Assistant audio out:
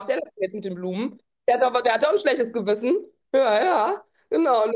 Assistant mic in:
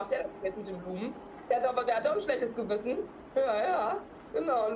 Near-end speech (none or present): none